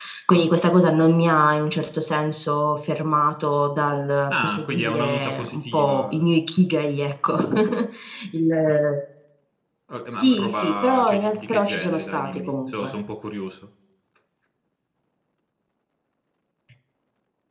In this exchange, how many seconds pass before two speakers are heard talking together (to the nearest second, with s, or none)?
4 s